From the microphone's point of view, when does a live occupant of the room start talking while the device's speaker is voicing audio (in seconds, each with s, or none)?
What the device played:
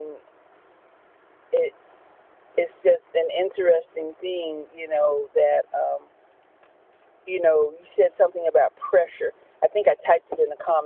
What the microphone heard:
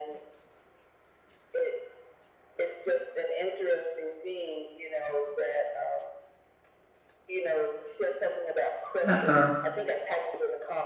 9.0 s